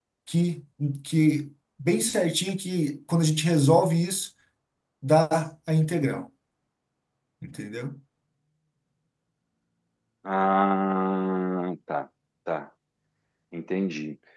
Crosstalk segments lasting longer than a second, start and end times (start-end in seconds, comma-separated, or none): none